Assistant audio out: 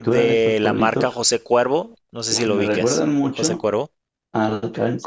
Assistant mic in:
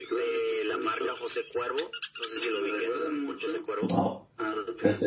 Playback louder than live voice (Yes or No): No